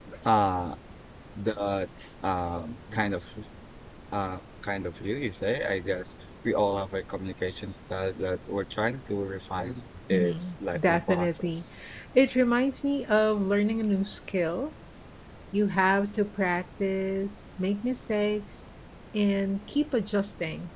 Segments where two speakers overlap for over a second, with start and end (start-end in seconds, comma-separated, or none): 10.1-11.6